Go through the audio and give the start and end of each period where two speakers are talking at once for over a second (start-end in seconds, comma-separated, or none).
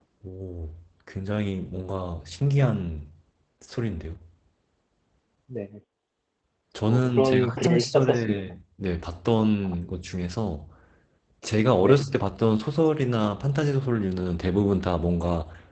6.9-8.4